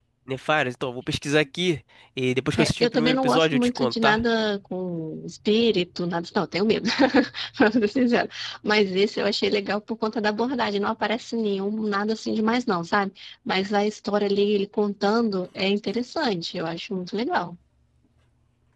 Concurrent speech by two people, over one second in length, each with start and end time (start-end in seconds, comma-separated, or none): 2.6-4.2